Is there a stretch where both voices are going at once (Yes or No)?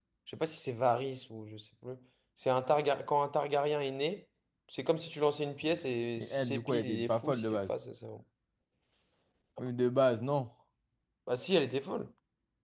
Yes